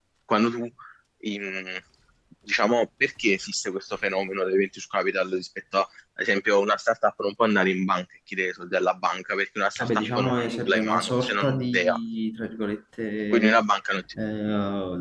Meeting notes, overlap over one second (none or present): present